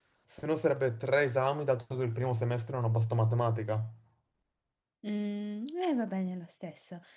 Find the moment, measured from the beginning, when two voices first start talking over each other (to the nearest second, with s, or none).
none